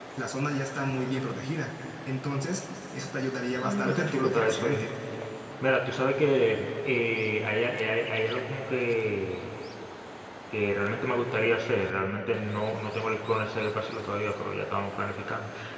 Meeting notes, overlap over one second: present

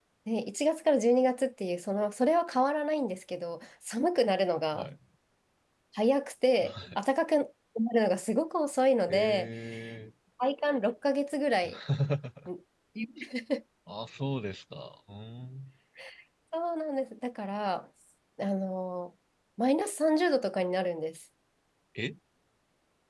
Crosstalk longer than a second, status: none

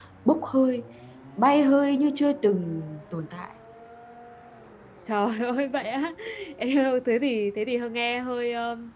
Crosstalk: none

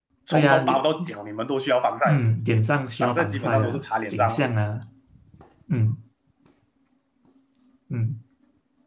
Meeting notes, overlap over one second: present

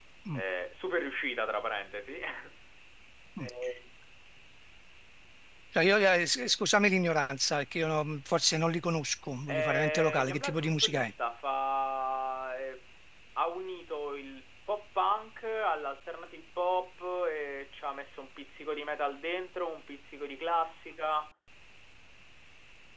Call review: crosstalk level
present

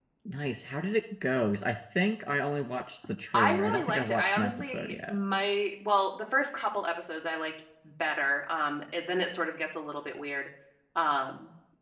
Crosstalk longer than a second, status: present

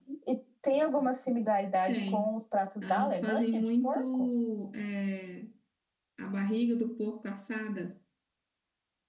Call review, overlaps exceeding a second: present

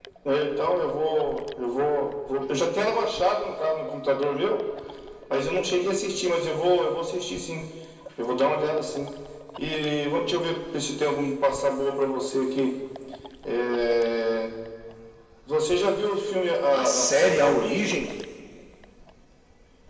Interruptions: present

